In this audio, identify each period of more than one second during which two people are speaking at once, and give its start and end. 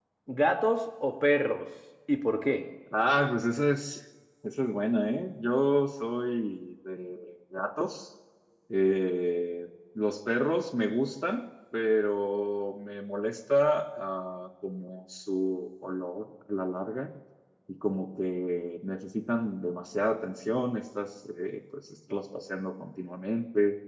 none

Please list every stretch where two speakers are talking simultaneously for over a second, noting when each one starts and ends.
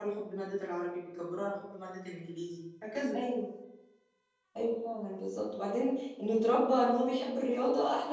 none

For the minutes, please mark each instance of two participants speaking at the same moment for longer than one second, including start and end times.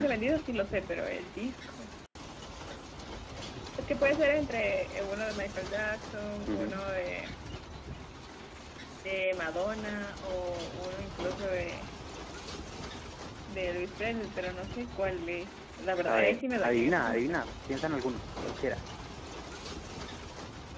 16.1-17.4

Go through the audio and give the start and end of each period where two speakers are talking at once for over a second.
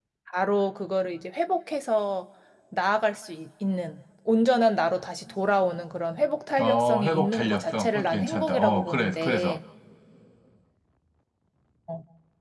6.6-9.6

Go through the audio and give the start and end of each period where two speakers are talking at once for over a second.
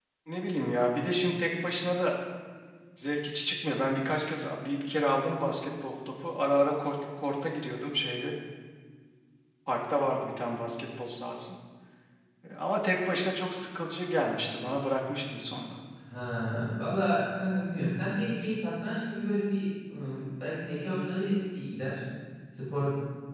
none

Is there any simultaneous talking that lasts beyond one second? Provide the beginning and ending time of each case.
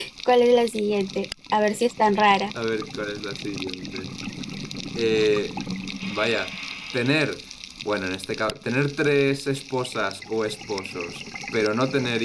none

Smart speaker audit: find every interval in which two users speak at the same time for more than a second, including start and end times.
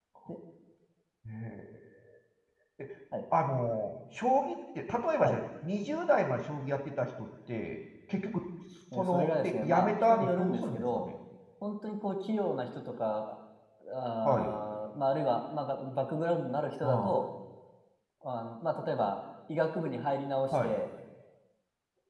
9.0-11.1

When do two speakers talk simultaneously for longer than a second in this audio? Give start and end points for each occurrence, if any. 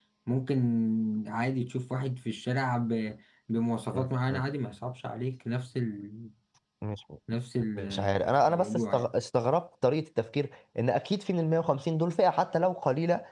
7.8-9.1

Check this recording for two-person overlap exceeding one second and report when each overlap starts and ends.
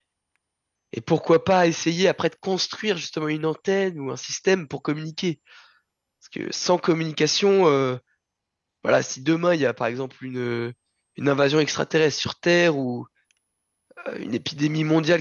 none

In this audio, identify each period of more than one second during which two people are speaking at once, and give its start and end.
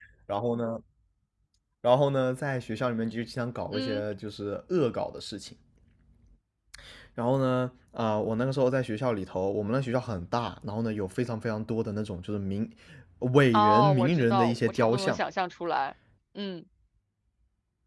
13.5-15.2

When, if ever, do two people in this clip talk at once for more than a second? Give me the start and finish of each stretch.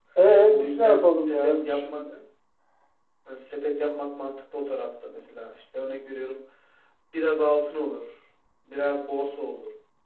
0.5-2.0

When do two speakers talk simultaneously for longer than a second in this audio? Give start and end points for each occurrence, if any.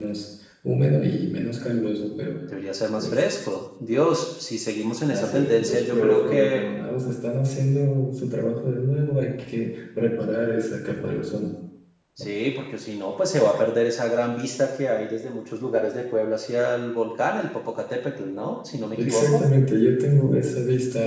5.1-6.7

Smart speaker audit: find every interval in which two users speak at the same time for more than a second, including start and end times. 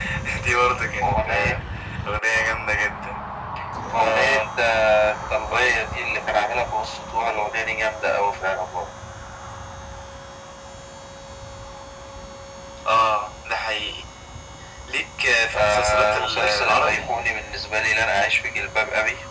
15.5-17.0

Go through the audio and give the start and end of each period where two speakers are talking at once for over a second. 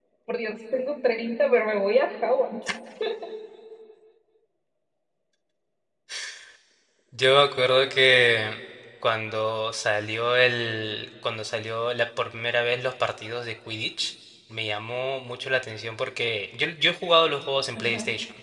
none

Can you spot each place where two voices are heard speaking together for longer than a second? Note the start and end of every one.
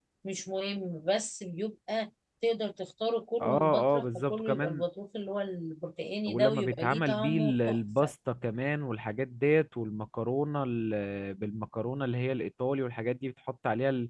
3.4-4.8, 6.3-8.1

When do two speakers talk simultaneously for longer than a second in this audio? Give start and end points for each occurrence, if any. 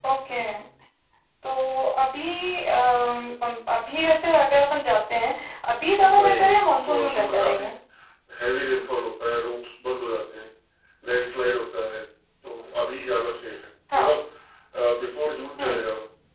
6.0-7.6

